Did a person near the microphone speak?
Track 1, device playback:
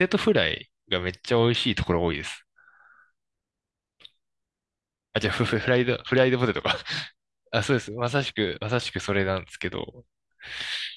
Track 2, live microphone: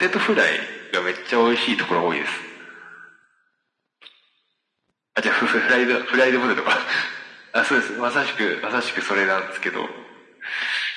No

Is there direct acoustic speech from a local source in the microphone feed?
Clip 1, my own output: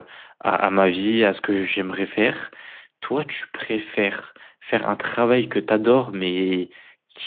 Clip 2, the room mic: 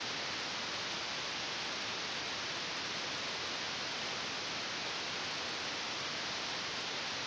No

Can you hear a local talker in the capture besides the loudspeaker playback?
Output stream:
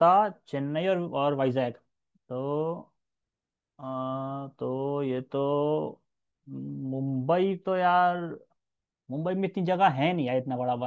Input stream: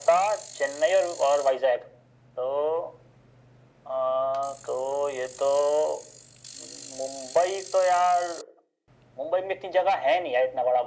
No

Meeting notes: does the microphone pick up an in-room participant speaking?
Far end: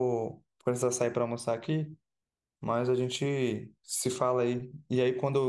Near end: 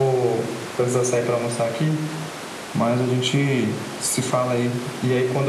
No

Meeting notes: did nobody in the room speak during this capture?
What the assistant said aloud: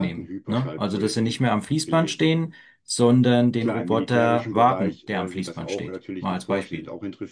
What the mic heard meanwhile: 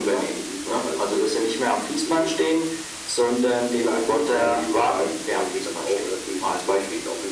Yes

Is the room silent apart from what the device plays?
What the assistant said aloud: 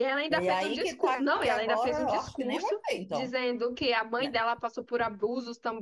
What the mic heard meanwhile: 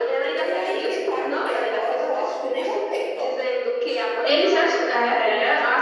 No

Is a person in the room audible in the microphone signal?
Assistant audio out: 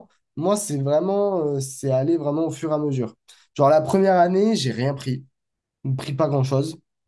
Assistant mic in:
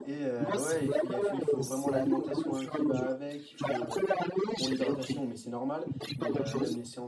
Yes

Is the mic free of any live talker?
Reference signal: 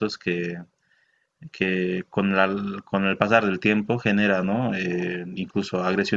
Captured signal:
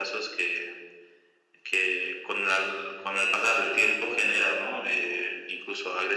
Yes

